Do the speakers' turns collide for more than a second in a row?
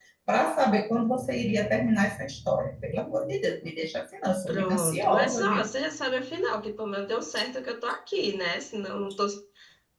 Yes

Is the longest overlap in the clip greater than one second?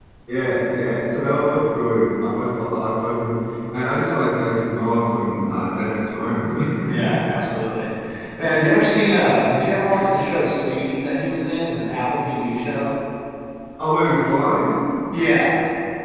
No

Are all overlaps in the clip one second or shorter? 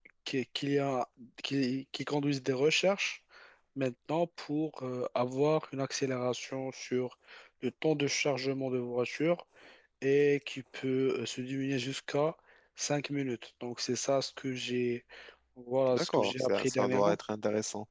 No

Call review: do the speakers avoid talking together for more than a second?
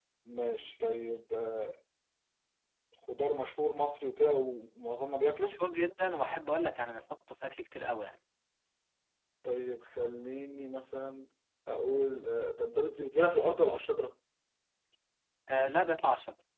Yes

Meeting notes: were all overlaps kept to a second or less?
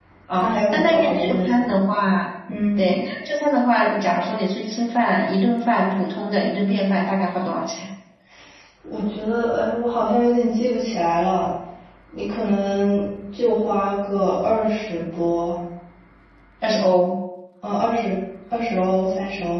No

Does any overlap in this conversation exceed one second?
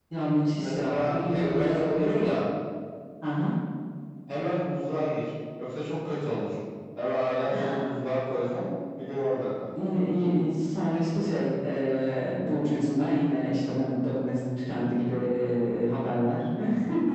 Yes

